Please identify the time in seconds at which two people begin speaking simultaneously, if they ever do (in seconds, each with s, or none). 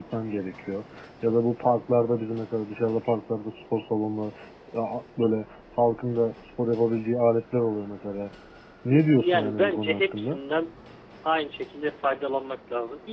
9.2 s